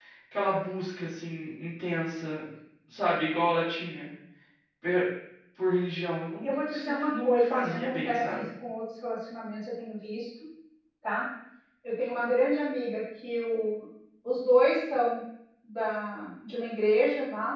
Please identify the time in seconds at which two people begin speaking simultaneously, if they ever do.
6 s

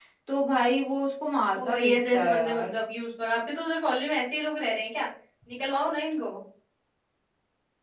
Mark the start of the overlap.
2 s

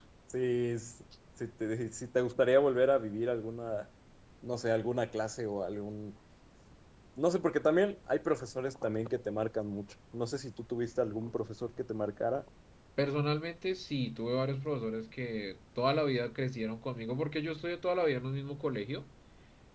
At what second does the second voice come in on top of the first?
none

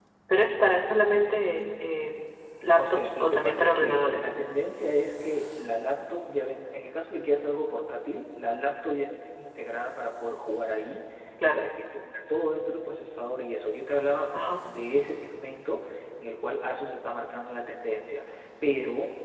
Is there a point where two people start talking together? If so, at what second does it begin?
3 s

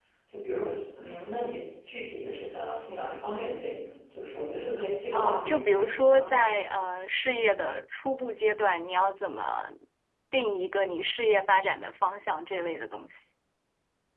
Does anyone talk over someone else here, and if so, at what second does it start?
5 s

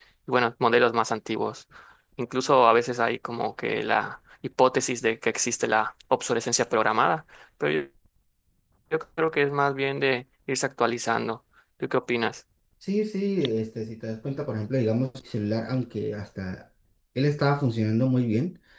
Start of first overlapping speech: none

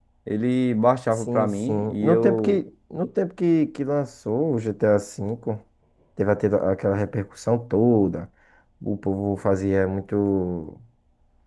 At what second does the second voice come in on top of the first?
1 s

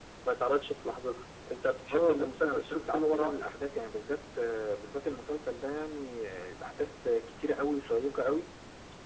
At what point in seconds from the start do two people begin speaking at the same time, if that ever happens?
2 s

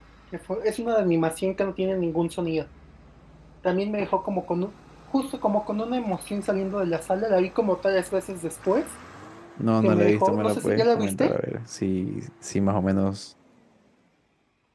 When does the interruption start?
10 s

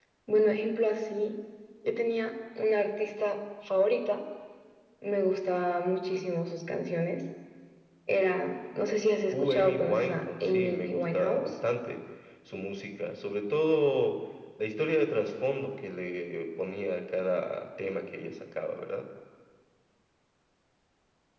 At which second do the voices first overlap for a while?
9 s

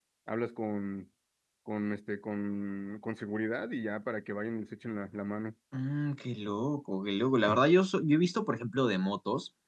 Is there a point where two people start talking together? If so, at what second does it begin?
none

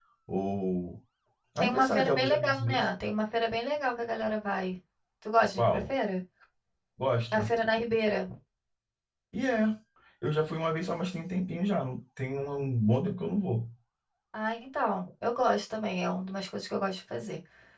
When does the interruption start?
2 s

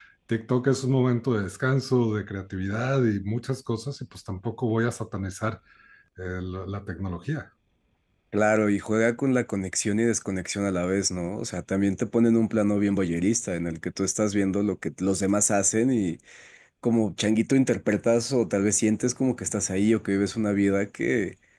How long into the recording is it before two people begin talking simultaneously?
none

